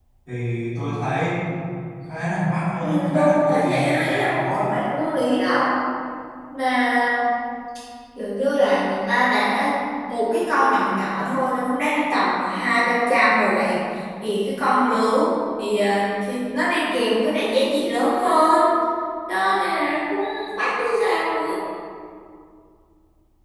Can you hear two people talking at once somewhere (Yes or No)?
Yes